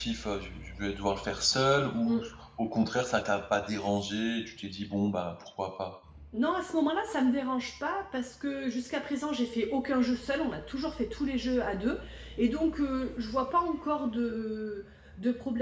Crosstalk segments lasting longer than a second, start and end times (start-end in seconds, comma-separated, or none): none